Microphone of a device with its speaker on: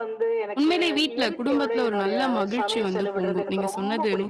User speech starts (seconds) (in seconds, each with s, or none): 0.6 s